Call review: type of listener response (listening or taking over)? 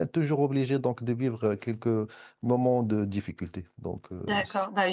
taking over